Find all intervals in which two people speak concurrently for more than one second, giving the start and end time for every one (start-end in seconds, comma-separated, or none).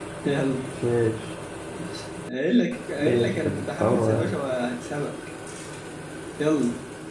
3.0-4.4